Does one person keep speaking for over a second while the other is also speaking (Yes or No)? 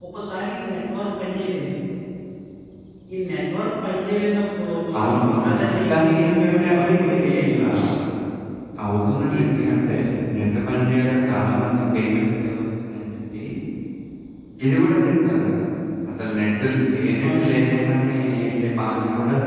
Yes